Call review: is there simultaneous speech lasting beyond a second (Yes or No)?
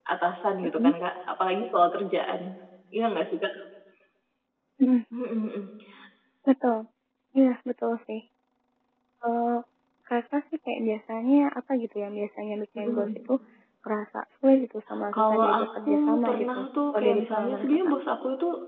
Yes